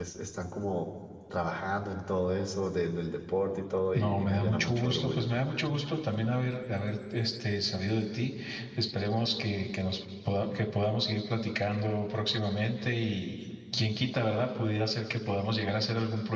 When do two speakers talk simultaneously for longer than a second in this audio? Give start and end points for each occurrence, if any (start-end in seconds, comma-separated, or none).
3.9-5.3